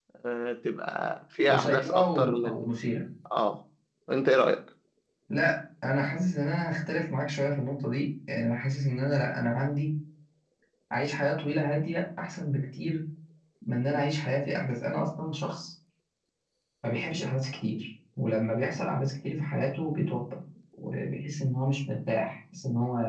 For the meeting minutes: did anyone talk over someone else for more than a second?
Yes, from 1.5 s

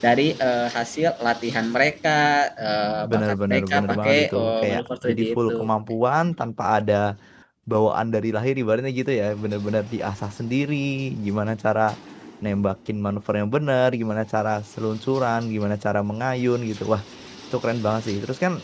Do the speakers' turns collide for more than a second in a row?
Yes, from 3.1 s

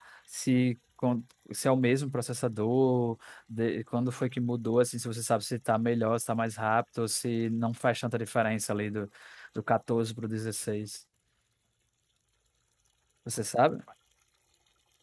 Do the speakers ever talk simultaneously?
No

